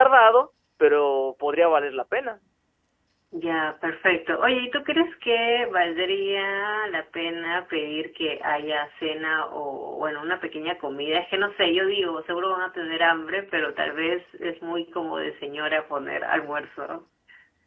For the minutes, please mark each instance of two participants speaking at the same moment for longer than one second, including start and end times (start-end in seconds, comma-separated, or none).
none